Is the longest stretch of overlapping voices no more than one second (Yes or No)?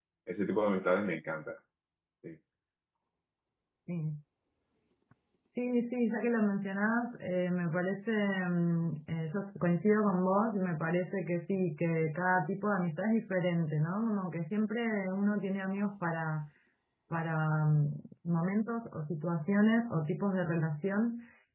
Yes